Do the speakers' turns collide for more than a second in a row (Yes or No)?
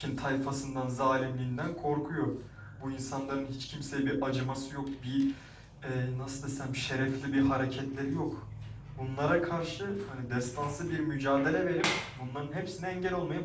No